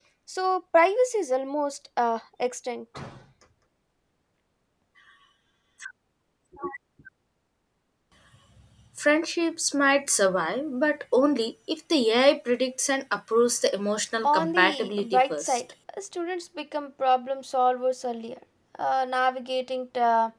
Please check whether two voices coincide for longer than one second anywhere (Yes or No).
Yes